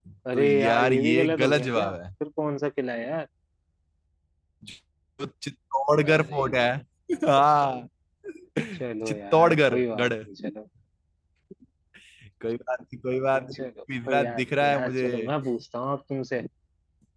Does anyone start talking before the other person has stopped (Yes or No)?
Yes